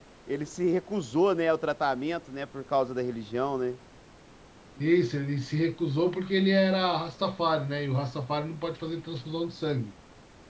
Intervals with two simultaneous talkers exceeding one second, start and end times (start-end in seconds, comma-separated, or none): none